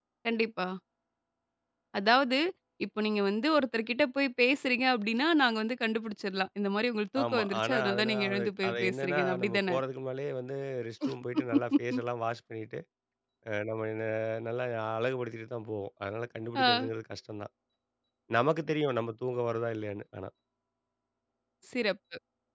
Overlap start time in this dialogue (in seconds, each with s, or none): 7.2 s